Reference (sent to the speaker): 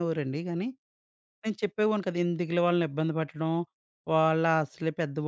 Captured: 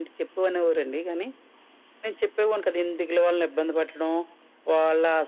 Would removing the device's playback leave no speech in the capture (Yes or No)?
Yes